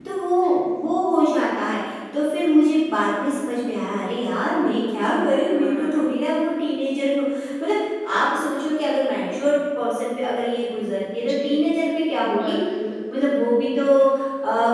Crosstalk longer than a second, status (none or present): none